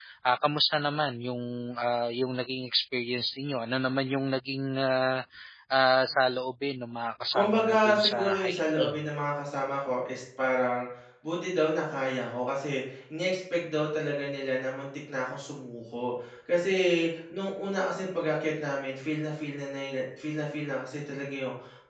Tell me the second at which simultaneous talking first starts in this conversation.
7.3 s

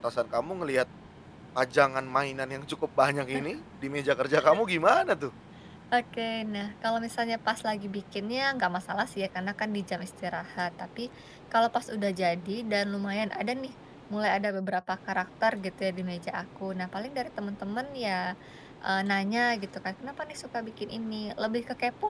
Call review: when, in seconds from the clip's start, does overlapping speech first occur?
none

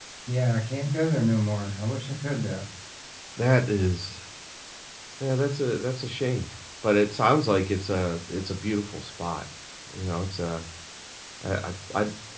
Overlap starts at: none

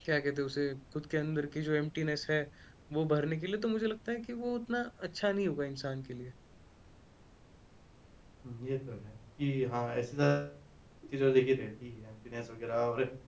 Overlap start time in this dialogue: none

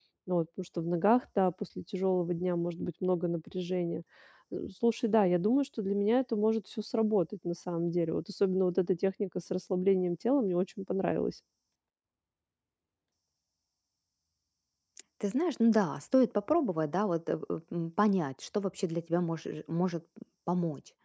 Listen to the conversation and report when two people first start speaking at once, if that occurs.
none

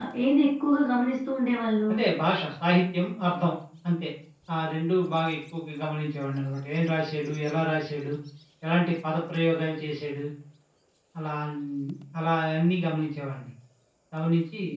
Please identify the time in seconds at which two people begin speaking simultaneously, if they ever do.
none

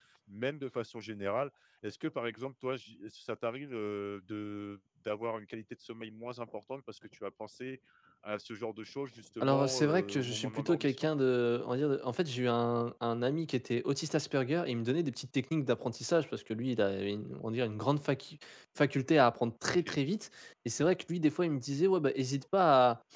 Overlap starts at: 9.4 s

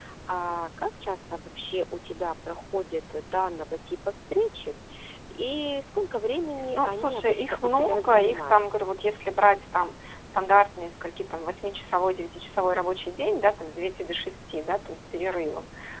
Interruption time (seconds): 6.8 s

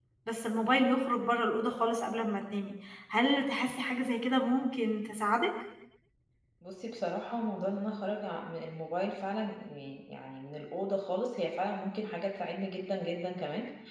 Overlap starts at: none

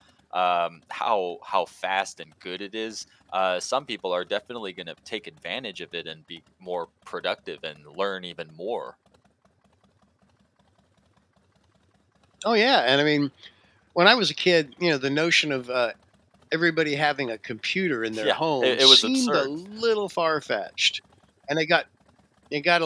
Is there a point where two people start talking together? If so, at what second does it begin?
18.1 s

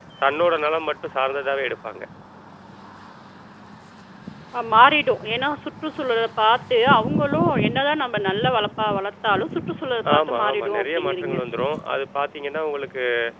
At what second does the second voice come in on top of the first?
10.1 s

